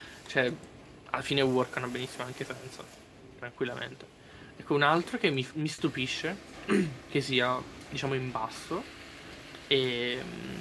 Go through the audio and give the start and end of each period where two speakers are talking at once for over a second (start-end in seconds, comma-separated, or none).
none